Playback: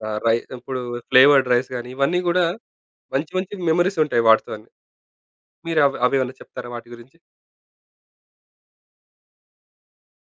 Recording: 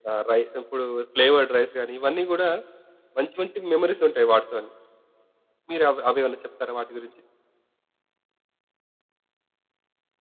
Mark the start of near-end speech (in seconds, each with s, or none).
none